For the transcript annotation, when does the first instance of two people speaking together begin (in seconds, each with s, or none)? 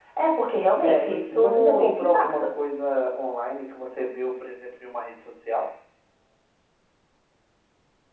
0.8 s